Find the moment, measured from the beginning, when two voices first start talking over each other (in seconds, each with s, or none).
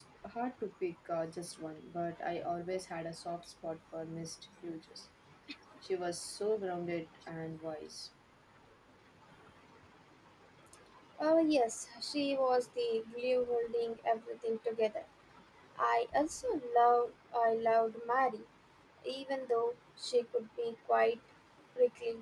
none